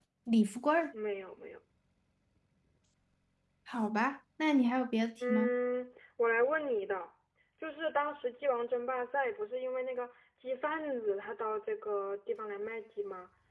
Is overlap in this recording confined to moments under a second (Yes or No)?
Yes